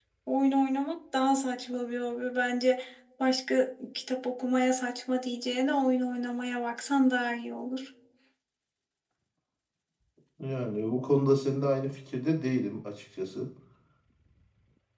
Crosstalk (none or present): none